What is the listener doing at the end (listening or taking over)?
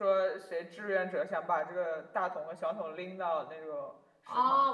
taking over